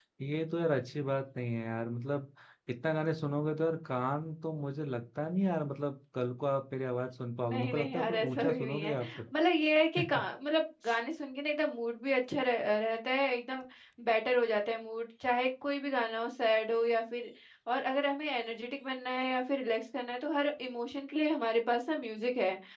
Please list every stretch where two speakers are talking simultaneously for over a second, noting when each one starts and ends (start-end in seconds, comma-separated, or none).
7.5-8.9